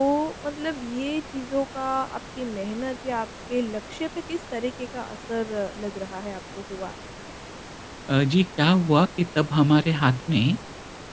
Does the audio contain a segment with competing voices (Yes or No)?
No